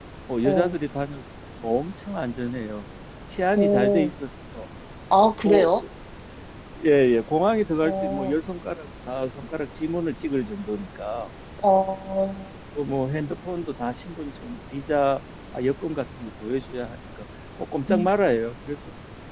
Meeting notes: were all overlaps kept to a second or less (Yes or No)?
Yes